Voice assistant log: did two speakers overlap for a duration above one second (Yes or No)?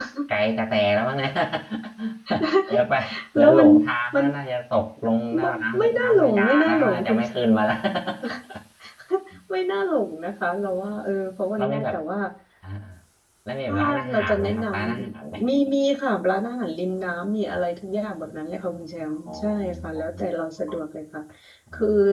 Yes